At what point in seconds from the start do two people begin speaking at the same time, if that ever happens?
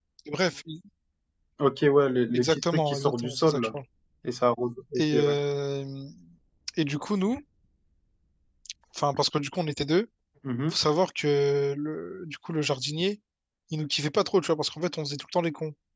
2.3 s

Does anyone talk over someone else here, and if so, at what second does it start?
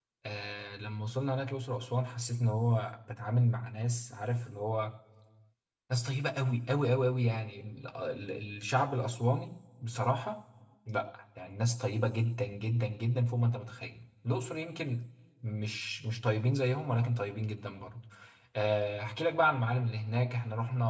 none

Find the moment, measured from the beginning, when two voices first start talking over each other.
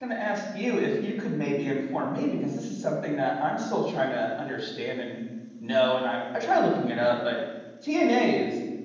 none

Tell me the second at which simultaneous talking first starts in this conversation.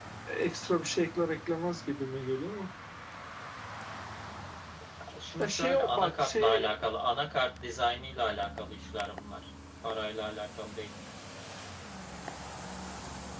5.4 s

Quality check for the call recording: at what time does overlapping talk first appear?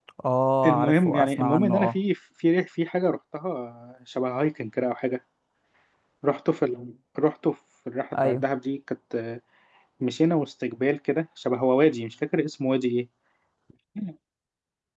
0.7 s

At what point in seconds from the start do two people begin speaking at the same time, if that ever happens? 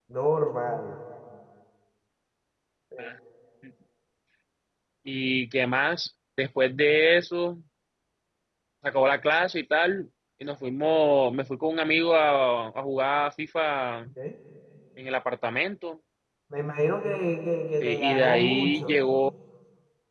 17.8 s

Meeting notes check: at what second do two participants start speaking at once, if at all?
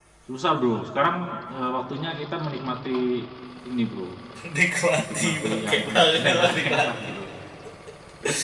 5.0 s

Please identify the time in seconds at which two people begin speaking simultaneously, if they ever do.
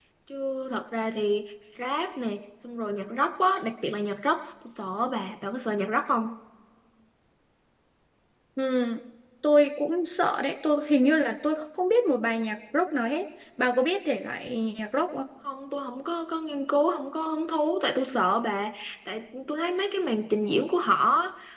none

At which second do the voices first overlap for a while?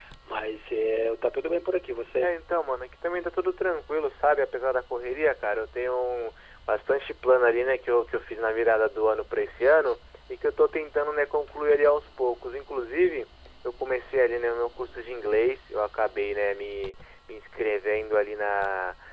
none

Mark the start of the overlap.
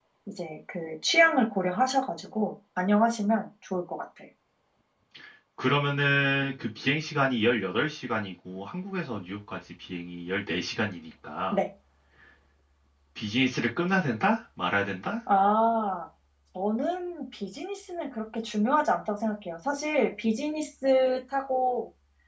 none

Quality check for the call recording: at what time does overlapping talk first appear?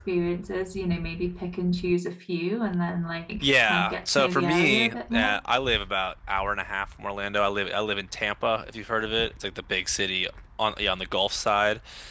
3.4 s

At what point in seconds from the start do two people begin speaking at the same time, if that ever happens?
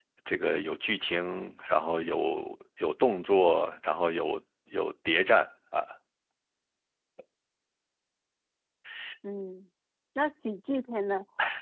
none

